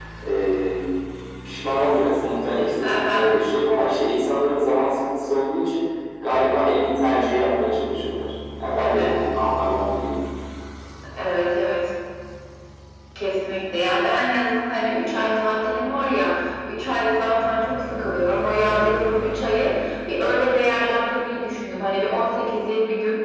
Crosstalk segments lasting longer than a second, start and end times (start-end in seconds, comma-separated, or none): none